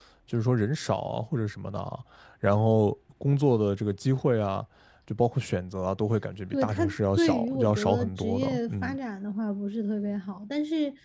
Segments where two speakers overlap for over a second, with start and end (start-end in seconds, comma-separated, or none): 6.5-9.0